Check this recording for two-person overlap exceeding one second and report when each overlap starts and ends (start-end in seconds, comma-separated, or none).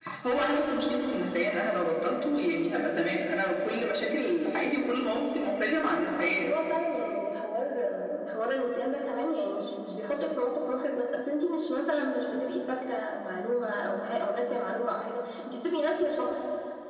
none